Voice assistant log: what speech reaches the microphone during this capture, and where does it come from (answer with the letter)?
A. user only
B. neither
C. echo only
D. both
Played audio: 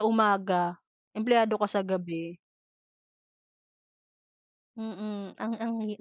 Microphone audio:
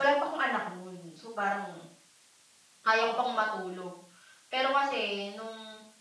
A